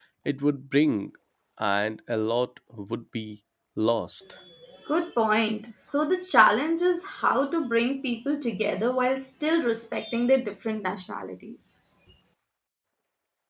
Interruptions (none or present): none